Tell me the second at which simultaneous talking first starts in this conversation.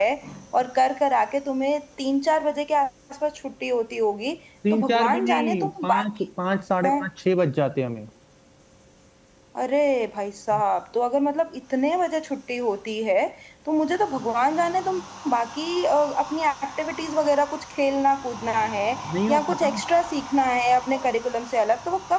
5 s

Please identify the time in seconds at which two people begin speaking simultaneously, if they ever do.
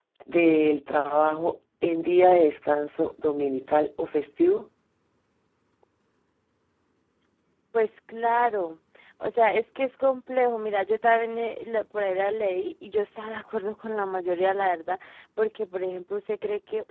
none

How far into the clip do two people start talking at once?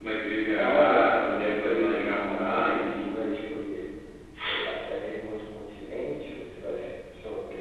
1 s

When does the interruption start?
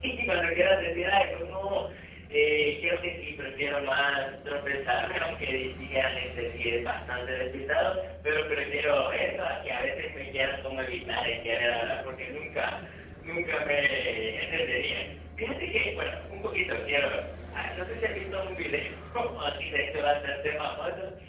none

